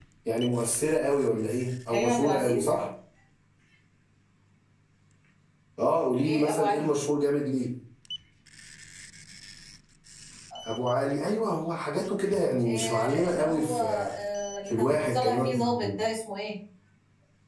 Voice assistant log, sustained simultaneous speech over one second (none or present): present